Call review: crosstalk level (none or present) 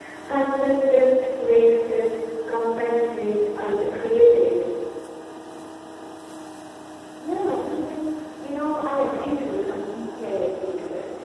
none